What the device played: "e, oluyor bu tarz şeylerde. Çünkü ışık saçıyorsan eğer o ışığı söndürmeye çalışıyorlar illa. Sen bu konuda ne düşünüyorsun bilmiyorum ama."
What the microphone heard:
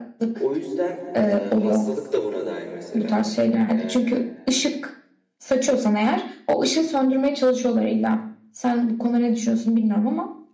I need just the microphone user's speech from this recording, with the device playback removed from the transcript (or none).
O yüzden e, hastalık da buna dahil mesela. E,